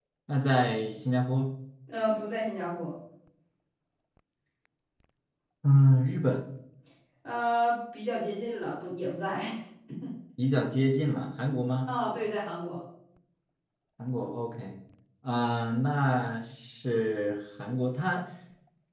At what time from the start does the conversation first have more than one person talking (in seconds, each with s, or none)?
none